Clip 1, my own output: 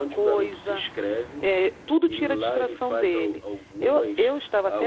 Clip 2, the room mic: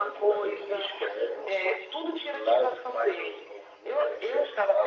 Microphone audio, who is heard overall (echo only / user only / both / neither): echo only